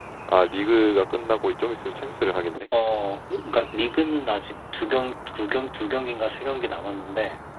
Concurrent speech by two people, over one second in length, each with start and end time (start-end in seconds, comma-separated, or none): none